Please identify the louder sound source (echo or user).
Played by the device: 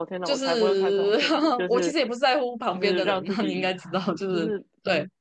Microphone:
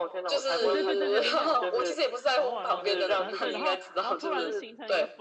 echo